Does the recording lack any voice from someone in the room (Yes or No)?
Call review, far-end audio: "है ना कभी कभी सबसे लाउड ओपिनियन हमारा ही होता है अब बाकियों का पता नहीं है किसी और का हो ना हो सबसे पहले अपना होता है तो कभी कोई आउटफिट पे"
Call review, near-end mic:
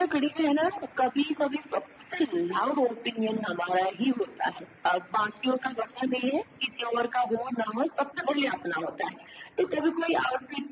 Yes